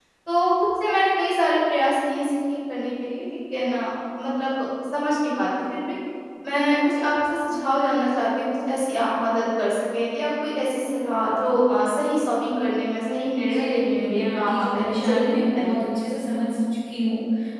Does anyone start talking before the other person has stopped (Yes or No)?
Yes